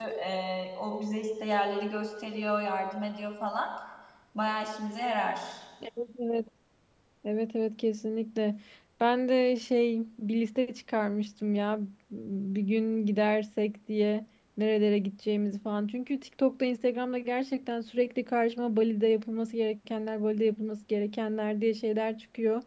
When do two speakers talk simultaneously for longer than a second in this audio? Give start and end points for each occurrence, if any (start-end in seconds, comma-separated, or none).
none